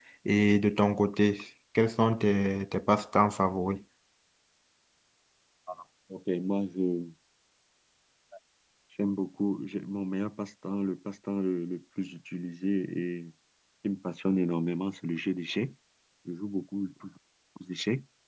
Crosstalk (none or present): none